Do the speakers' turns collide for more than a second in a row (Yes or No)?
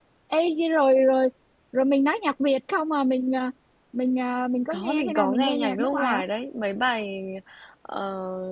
Yes